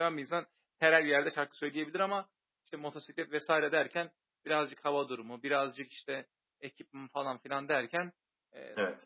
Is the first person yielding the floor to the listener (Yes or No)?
No